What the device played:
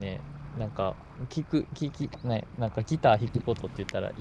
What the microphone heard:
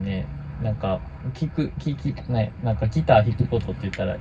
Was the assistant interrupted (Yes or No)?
No